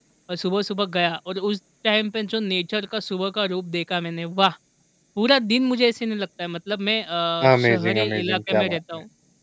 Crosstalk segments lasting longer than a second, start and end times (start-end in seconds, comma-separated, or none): 7.5-8.8